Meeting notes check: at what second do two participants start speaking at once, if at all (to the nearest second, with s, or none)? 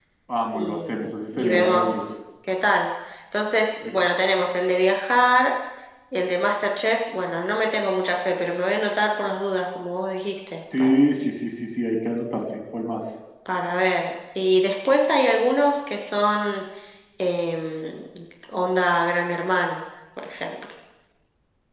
1 s